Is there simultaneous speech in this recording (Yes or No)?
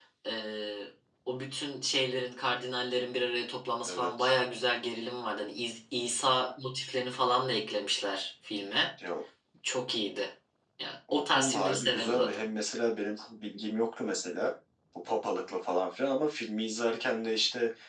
Yes